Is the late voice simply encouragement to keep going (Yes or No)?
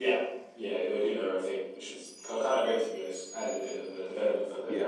No